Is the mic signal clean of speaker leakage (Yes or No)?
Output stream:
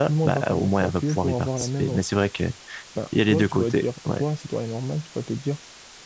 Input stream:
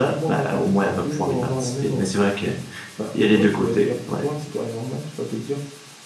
No